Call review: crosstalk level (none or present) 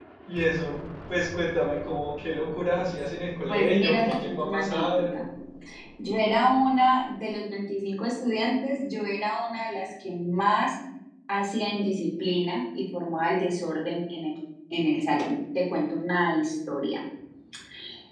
present